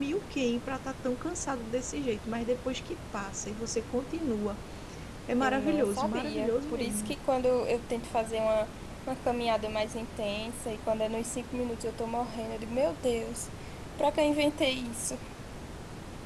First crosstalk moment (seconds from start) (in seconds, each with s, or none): 5.4 s